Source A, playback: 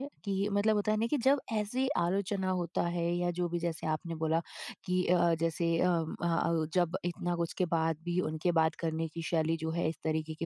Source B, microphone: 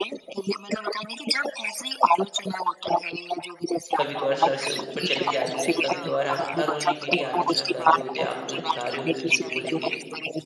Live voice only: कभी-कभार सर से ऊपर चली जाती है, कभी-कभार आप हर रोज ही मेरी आलोचना कर रहे होते आक्रोश दिखा रहे होते हो चीज़ों को लेके,

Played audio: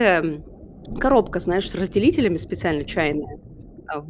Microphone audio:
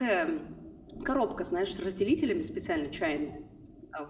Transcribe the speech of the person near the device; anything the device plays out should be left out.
none

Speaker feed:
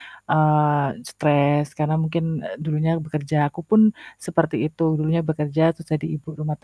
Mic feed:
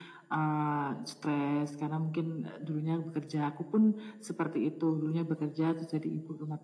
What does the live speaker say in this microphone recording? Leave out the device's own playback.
none

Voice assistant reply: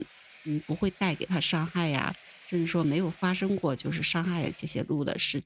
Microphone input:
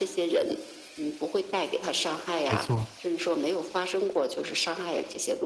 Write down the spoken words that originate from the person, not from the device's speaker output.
没错。

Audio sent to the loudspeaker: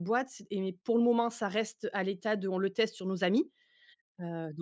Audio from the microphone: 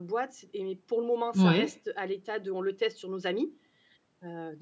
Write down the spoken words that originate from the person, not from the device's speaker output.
Ouais.

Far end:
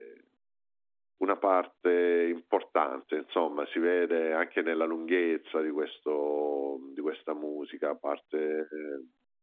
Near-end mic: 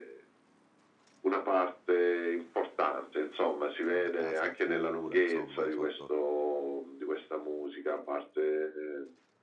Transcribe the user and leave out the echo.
in una casa di cura insomma, sotto

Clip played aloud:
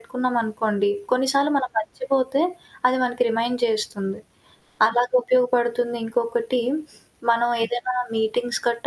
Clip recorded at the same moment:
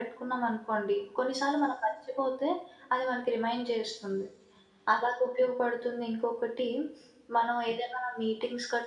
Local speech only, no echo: none

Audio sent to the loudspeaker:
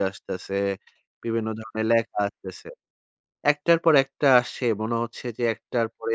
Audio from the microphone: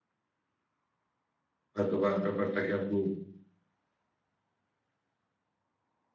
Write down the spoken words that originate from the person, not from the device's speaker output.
হয়তোবা ব্যাপারটাকে আপনি

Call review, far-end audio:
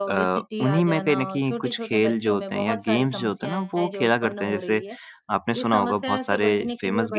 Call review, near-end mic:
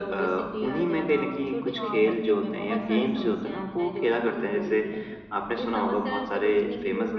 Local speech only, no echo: हाँ। बिल्कुल।

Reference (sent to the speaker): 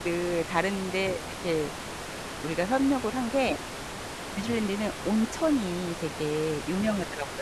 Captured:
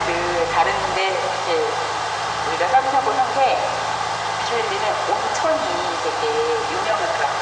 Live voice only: none

